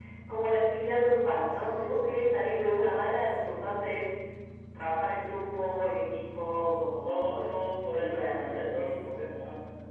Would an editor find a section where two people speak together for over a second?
Yes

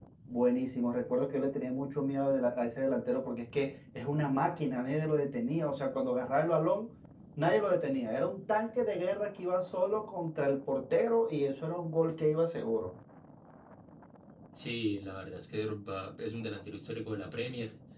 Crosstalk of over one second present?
No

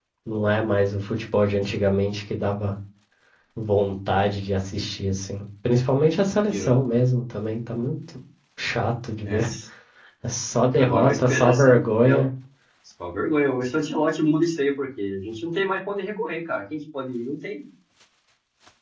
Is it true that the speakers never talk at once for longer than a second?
No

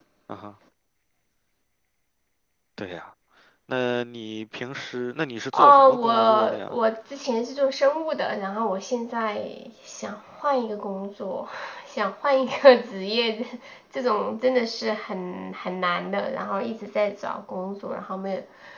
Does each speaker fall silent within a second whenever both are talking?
No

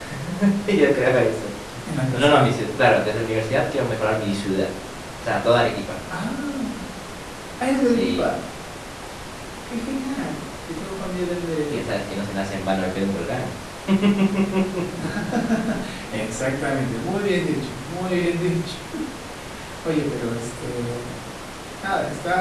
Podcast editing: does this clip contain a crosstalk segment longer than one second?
No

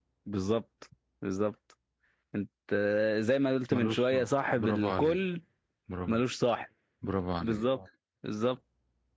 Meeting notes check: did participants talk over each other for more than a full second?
Yes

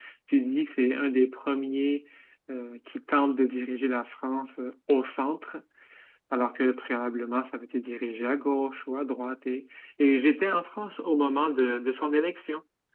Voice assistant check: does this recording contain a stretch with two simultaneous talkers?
No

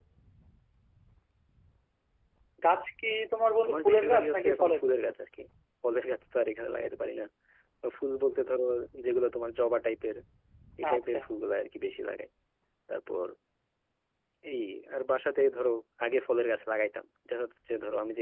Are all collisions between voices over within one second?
No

